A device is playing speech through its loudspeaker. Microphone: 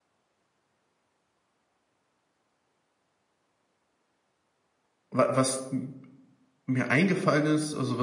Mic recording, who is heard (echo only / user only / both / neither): user only